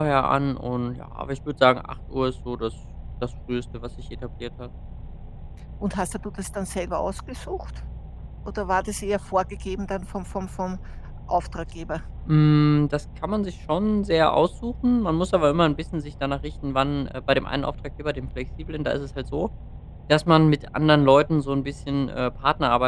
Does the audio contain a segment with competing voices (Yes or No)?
No